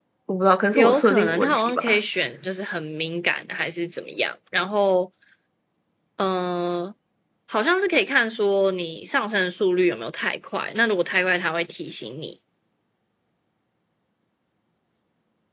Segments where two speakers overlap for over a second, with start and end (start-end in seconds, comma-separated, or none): 0.7-2.0